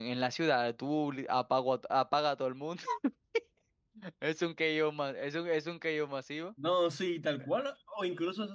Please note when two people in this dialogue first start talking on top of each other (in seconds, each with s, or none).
none